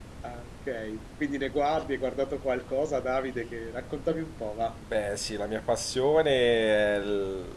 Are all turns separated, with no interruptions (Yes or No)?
Yes